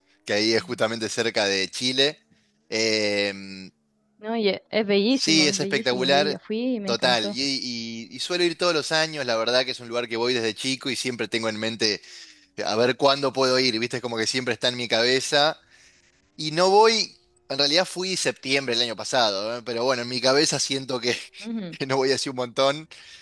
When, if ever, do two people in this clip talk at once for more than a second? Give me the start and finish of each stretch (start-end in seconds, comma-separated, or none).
5.1-6.3